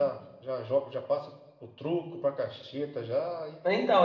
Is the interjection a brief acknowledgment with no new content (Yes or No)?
No